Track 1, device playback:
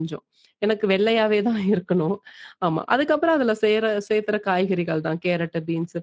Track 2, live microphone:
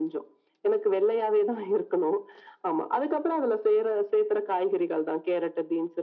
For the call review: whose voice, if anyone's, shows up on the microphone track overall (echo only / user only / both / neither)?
echo only